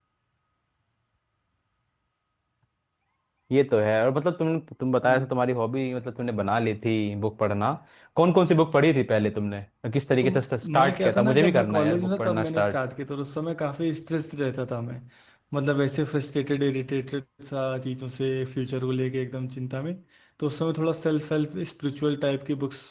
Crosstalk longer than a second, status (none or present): present